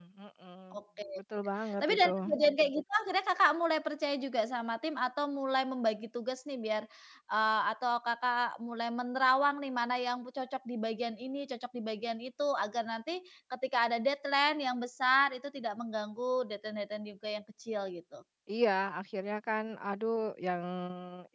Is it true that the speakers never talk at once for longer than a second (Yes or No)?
Yes